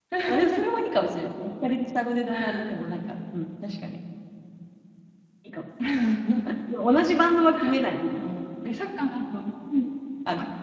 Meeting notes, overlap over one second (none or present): none